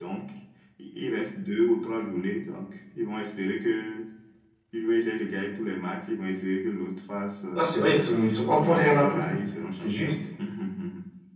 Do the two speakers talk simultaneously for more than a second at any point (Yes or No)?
Yes